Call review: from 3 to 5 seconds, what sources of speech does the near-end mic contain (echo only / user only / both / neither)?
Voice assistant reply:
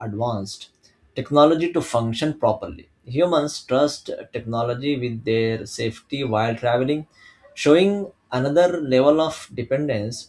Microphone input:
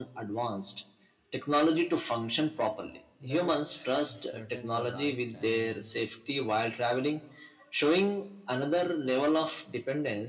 both